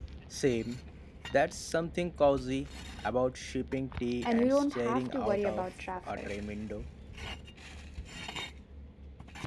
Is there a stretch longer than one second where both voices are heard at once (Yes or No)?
Yes